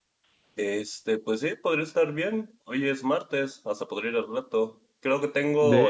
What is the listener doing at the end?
listening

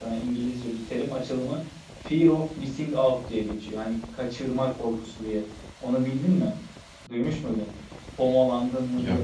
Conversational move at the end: listening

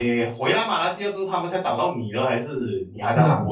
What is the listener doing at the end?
taking over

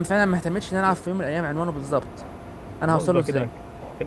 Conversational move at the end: taking over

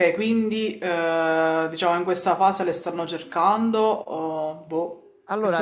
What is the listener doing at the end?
taking over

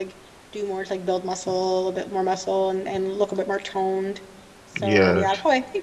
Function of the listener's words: listening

